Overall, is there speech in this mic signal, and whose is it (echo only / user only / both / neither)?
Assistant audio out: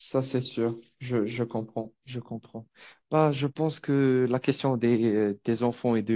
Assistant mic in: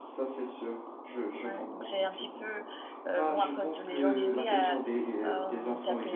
both